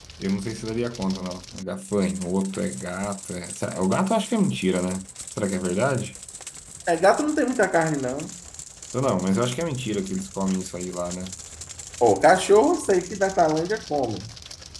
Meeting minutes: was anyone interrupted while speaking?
No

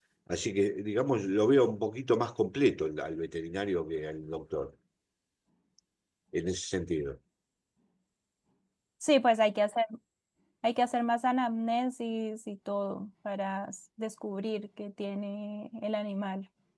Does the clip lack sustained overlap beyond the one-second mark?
Yes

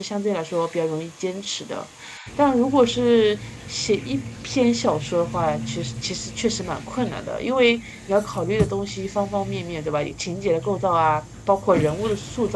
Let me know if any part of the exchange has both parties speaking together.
No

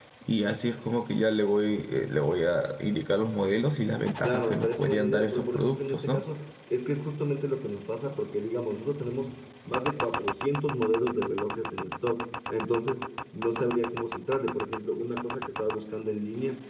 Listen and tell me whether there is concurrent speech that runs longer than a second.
Yes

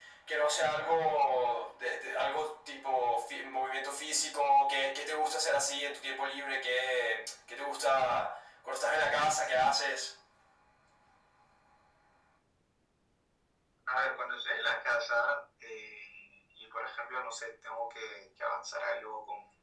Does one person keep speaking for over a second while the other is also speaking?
No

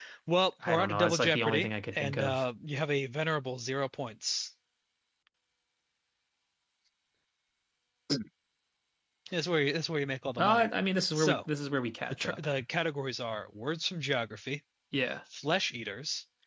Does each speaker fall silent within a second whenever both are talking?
No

